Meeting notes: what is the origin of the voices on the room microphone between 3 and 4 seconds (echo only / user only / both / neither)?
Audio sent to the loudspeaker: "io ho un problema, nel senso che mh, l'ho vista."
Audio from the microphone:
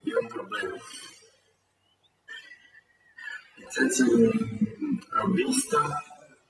echo only